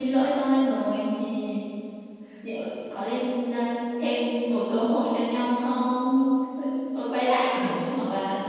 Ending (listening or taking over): listening